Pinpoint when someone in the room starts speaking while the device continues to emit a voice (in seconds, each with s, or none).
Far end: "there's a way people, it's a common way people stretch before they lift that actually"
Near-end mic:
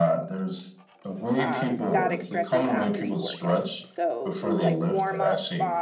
1.4 s